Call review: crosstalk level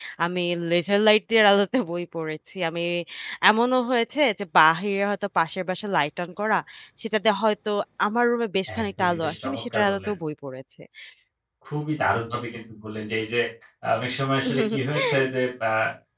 present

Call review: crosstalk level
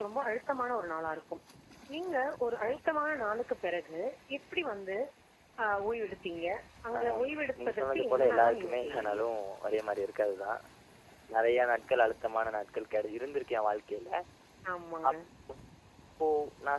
present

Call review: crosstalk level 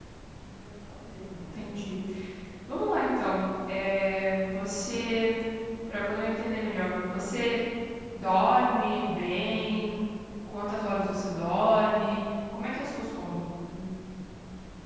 none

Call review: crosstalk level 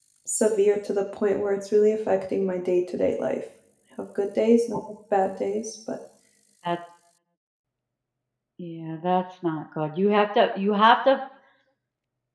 none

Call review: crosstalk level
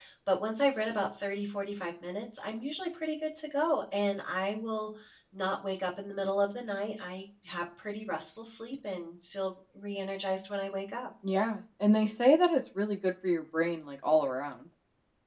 none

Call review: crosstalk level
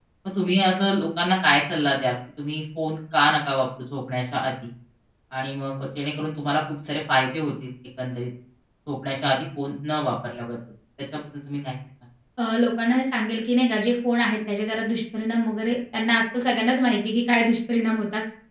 none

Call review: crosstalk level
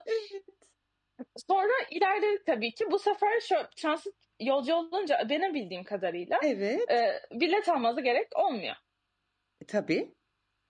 none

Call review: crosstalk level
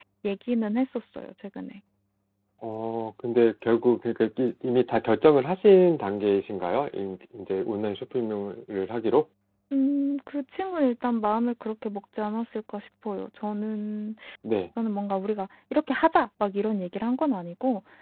none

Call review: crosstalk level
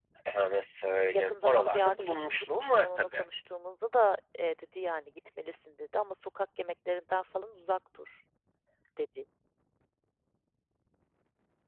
present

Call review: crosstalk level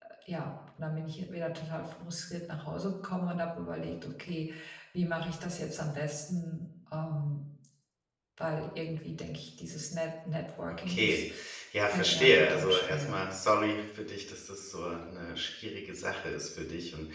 present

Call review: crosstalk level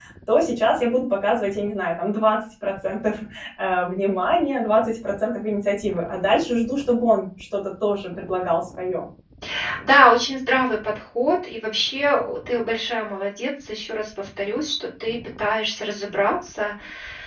none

